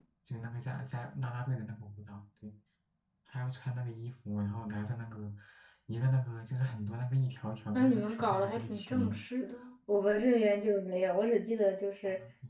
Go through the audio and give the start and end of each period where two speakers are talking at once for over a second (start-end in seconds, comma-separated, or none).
7.7-9.2